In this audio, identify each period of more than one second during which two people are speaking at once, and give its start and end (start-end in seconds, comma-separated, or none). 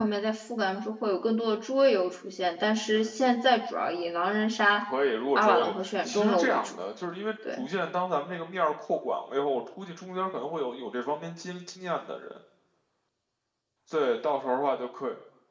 5.4-6.8